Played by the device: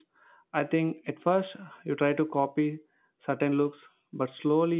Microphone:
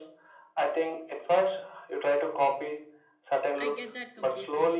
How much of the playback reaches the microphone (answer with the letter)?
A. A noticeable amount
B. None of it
A